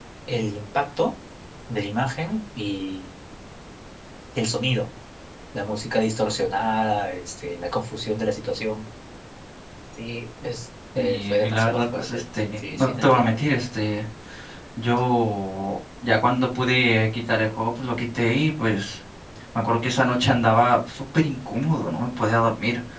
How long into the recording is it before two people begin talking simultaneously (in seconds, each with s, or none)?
10.9 s